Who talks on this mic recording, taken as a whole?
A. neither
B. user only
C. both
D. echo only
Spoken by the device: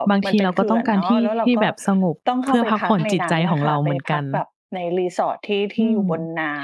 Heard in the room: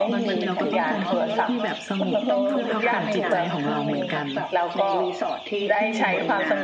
C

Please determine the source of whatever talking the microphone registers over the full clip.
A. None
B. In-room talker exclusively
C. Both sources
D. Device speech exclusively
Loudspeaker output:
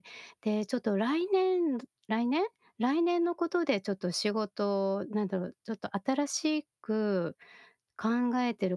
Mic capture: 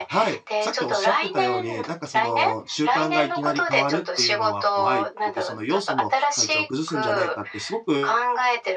C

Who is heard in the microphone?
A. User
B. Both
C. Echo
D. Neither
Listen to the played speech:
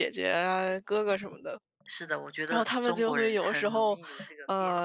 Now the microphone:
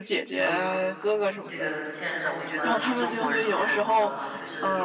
B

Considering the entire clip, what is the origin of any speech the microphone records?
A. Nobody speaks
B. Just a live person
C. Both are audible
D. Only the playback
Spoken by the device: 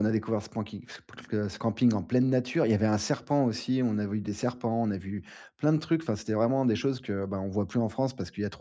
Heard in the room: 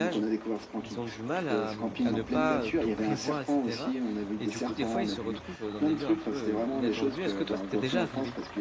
C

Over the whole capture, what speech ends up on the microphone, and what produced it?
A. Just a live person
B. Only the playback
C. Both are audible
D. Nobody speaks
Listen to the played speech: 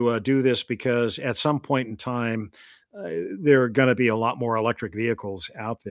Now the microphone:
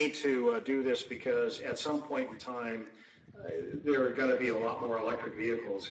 B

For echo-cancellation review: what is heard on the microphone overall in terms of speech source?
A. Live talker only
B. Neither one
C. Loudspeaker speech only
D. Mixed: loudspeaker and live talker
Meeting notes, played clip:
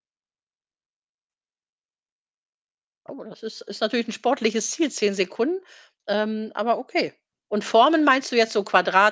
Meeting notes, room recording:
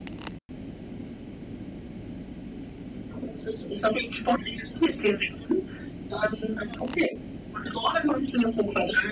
C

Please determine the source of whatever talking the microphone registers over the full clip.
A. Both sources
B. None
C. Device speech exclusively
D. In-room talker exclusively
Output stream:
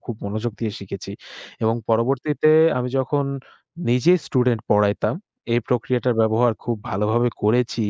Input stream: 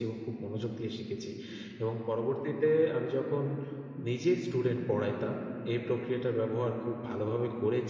C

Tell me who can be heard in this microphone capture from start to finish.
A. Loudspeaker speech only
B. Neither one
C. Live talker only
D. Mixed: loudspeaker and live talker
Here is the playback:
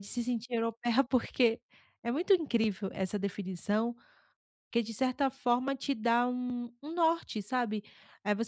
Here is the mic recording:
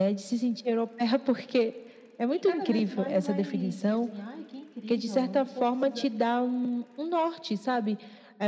D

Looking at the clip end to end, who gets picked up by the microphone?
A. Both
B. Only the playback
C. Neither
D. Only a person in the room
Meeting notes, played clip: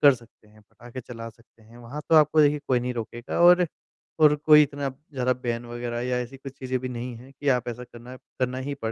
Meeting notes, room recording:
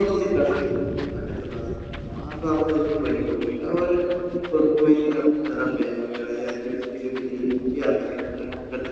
B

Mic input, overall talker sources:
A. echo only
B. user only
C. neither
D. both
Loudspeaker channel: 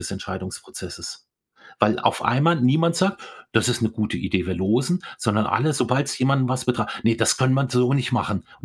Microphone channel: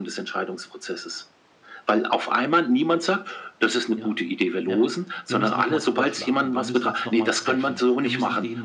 D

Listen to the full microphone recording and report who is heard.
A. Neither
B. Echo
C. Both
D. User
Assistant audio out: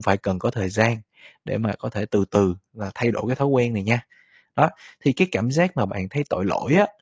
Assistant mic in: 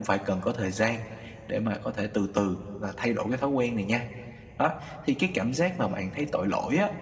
B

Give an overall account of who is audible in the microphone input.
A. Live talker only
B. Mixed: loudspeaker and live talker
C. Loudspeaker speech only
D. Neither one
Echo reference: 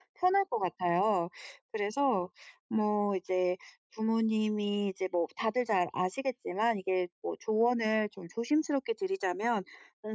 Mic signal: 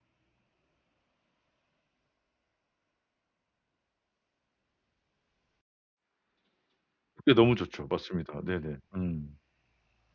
A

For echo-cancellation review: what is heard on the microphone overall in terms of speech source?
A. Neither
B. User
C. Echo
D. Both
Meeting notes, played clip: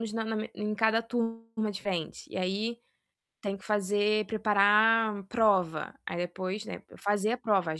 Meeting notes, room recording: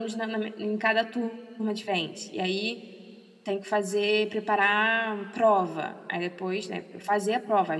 C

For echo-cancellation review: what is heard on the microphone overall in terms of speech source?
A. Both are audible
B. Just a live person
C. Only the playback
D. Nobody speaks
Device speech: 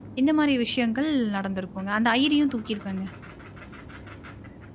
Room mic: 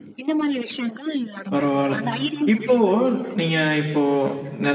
A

